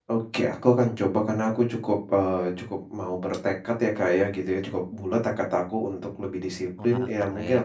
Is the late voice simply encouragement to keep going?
Yes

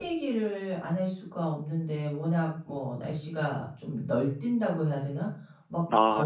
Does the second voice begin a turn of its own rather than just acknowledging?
No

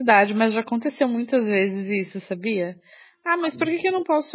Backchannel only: Yes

